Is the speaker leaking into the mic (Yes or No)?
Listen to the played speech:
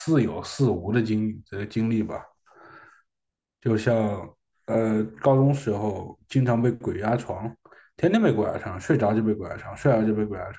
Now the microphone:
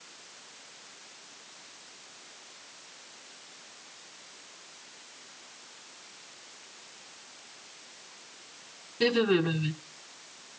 No